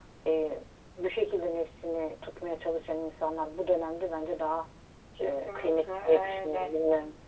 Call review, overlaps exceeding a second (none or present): present